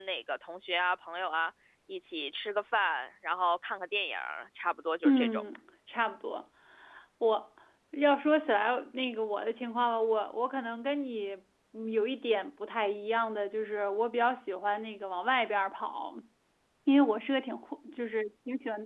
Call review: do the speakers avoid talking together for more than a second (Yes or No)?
Yes